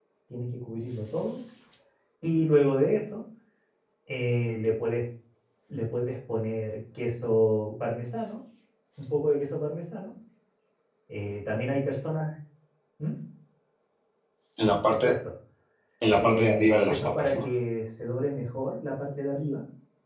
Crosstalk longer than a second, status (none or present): present